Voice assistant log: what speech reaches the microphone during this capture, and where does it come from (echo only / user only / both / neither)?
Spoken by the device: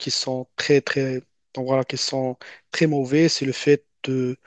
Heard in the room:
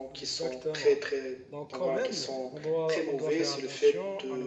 both